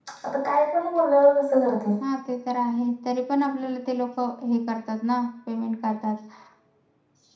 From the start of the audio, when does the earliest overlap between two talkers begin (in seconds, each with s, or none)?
none